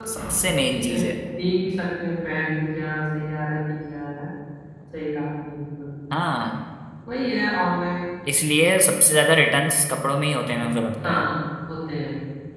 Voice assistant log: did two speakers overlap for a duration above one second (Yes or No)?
No